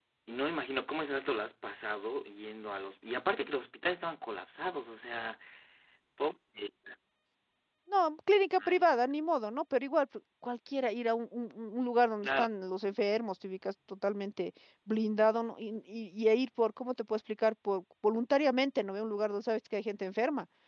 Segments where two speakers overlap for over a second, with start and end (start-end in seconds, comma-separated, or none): none